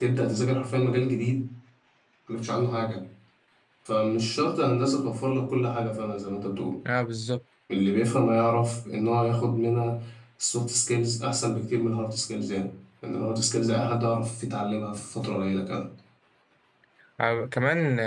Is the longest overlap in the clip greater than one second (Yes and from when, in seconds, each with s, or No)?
No